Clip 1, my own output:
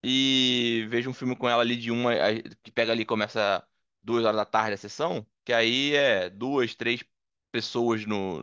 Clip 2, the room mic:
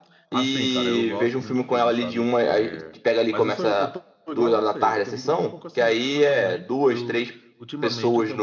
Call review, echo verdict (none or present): present